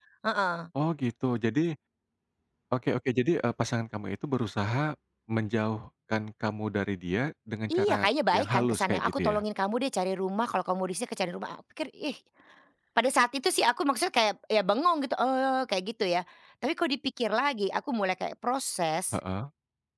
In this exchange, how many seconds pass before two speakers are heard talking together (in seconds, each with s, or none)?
7.7 s